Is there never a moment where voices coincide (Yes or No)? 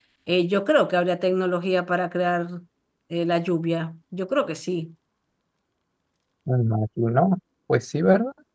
Yes